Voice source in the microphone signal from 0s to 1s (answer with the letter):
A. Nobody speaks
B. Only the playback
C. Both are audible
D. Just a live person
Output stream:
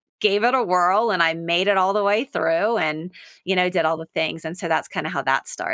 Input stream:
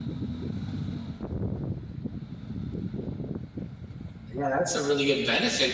A